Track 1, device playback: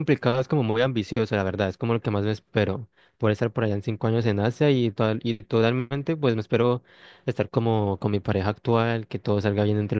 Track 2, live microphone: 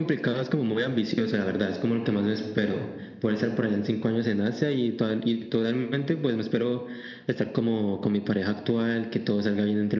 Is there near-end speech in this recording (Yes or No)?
No